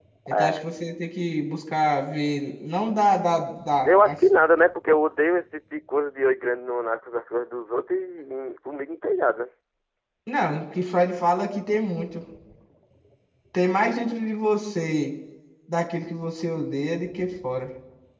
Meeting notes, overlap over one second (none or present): none